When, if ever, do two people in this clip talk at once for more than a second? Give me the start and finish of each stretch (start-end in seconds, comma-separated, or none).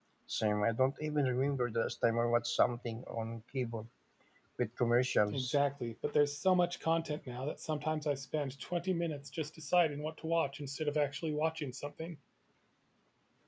none